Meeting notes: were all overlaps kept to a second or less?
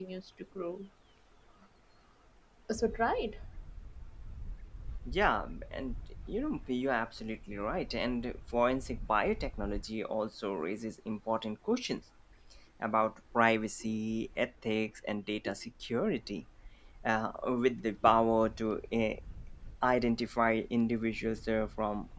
Yes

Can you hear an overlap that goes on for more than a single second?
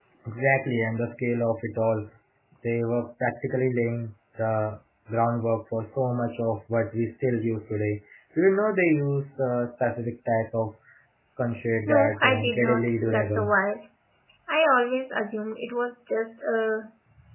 Yes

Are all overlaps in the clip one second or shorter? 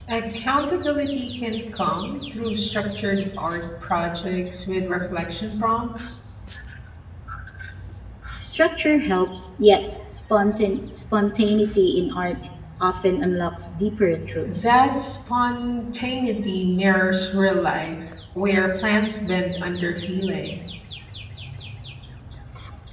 Yes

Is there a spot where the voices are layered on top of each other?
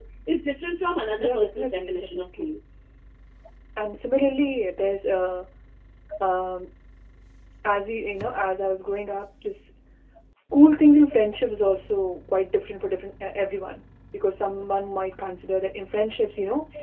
Yes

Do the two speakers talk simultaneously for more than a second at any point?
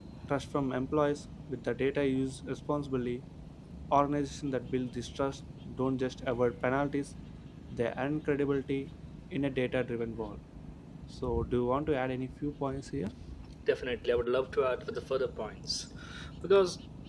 No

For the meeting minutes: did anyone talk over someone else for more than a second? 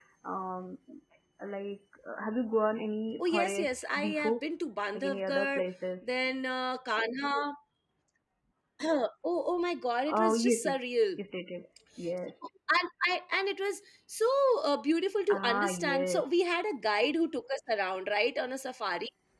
Yes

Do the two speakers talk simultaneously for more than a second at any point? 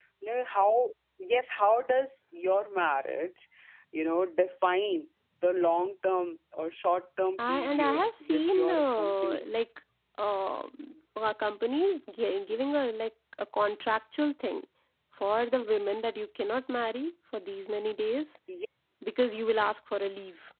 Yes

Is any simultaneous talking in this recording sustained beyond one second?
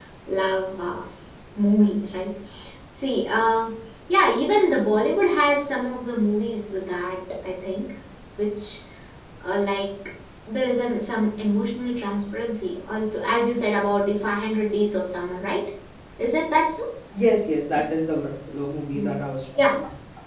No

